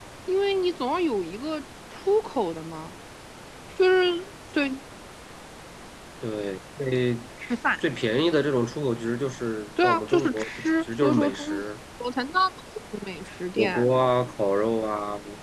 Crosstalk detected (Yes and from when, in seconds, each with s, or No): Yes, from 9.8 s